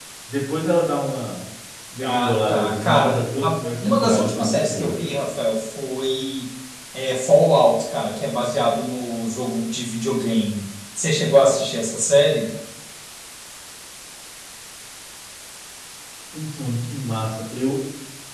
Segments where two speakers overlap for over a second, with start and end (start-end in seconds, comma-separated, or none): 2.0-5.0